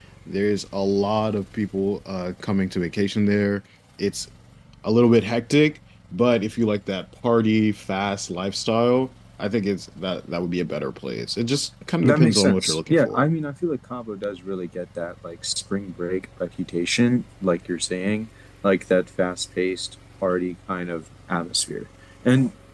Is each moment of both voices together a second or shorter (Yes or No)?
No